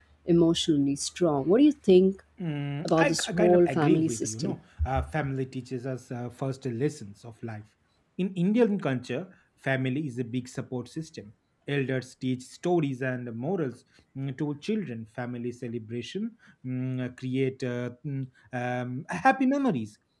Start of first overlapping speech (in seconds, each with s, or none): 2.8 s